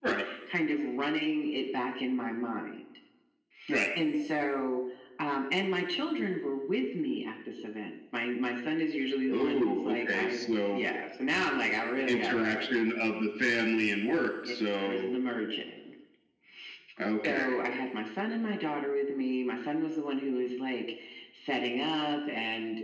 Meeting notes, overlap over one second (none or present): present